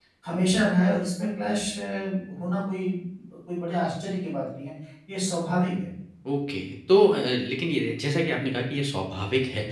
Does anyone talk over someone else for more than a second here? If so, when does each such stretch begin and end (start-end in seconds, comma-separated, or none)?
none